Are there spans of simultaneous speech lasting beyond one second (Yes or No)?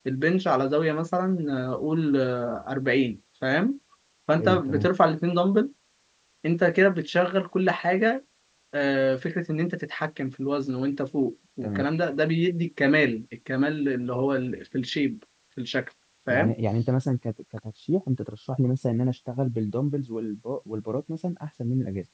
No